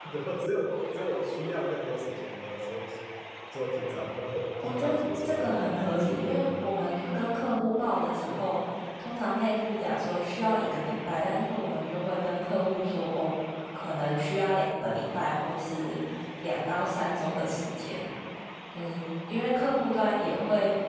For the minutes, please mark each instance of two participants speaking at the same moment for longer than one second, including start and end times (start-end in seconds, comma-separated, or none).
4.6-6.5